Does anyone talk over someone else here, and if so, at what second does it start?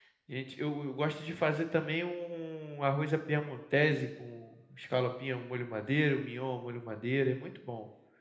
none

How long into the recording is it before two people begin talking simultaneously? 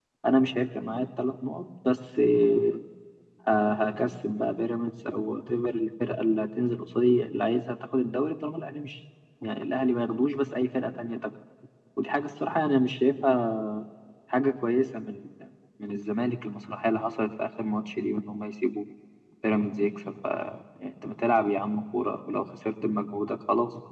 none

